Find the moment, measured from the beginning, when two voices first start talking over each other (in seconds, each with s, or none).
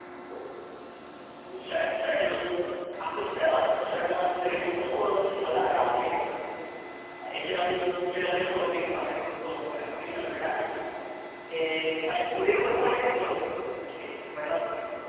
4.4 s